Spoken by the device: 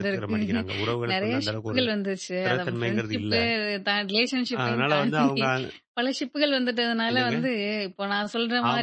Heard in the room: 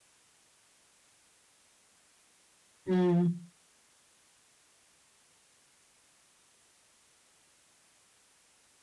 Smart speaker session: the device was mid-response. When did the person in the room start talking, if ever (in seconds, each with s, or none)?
2.9 s